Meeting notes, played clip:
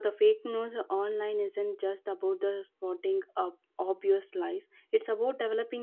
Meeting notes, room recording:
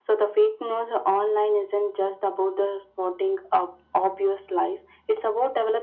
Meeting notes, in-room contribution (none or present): none